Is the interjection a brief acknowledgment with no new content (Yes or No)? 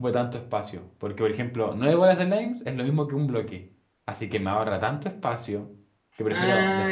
No